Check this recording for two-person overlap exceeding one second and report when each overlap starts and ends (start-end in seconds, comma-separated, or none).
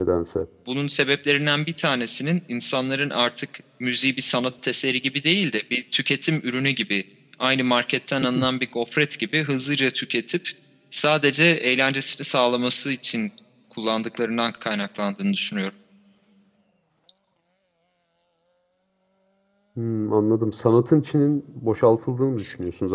none